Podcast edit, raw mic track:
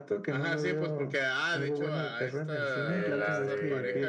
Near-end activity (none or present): present